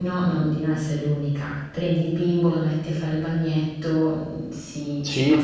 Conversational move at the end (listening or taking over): taking over